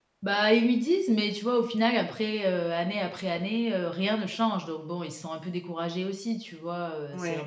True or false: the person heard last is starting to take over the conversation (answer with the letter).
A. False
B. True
A